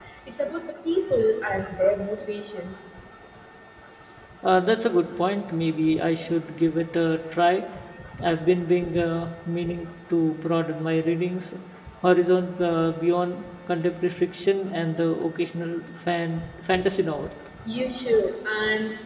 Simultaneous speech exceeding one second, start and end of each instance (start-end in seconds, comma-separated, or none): none